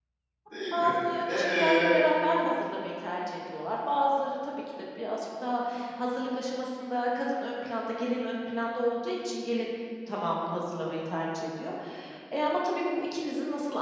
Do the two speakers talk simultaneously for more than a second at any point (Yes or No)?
Yes